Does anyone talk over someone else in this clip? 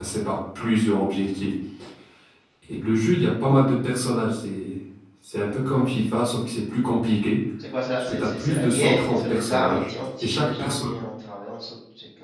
Yes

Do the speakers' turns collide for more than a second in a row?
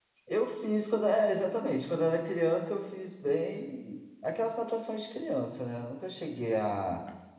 No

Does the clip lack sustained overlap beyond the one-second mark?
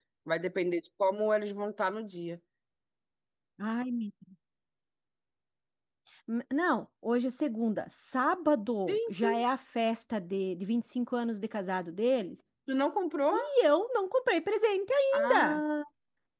Yes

